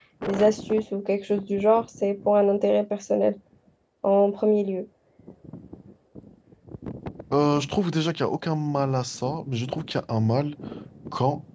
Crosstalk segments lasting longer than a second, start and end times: none

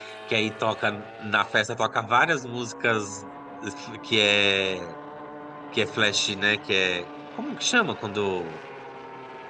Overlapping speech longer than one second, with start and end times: none

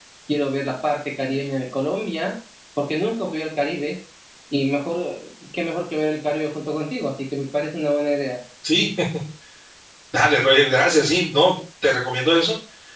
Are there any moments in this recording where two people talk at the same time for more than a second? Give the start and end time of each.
none

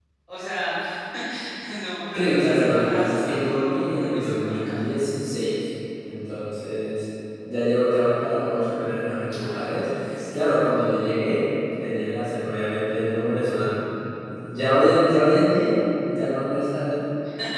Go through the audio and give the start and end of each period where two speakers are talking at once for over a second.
2.1-4.9

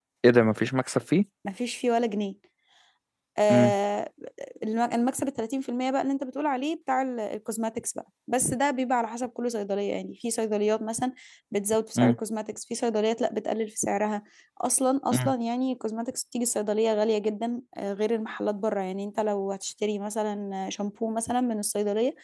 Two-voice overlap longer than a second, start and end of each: none

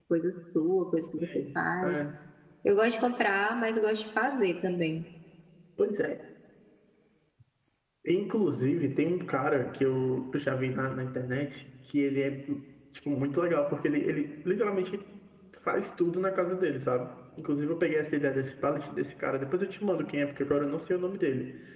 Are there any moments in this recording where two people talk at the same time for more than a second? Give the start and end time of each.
none

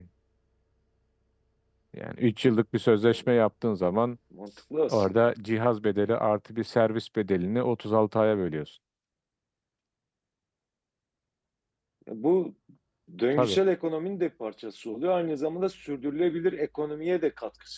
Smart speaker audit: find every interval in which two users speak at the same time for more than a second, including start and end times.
none

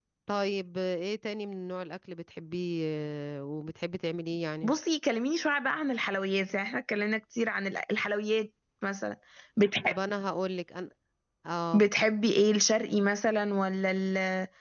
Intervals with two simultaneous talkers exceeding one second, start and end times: none

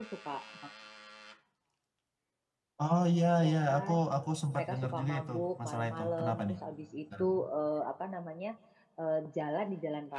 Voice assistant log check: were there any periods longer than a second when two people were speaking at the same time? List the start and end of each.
4.5-6.5

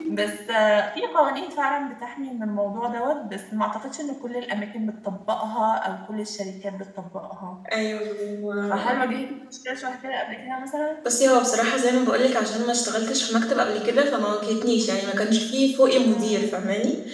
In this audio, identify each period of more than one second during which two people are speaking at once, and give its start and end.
none

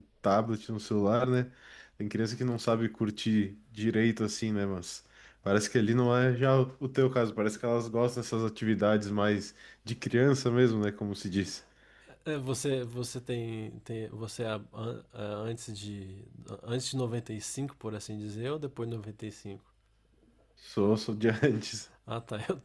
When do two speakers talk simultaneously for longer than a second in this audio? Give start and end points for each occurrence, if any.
none

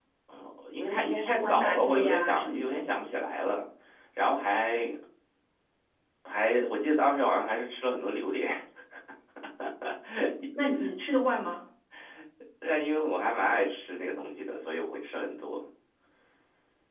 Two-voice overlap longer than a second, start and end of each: 0.9-2.8

